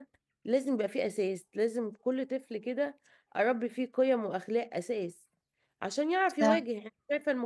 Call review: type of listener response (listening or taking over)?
listening